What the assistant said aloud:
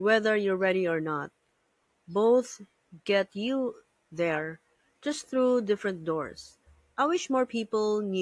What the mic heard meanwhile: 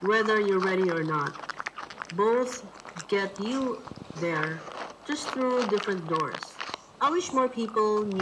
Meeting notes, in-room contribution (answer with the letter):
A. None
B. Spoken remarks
A